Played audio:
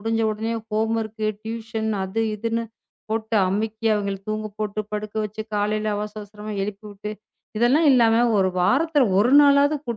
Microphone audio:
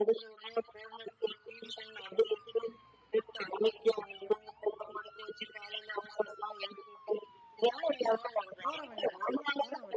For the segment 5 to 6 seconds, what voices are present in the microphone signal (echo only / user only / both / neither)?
echo only